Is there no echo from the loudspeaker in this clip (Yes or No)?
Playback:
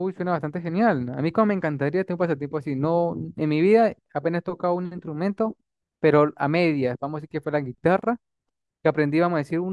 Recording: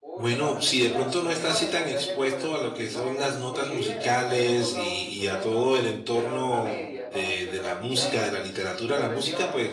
No